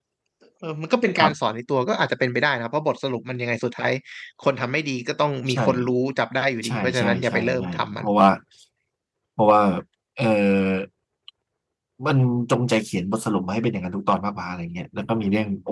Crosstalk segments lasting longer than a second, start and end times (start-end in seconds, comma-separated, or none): 6.6-8.1